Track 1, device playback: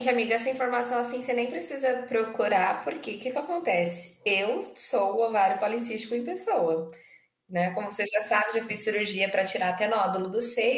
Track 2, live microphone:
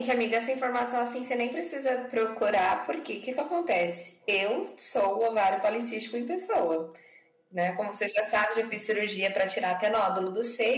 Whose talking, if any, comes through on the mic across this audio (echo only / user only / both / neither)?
echo only